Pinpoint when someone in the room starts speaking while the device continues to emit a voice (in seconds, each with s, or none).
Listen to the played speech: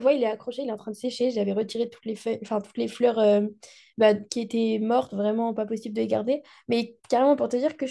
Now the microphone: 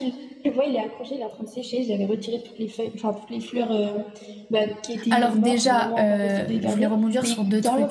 5.1 s